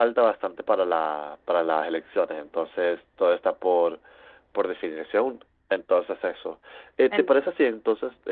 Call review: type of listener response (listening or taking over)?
listening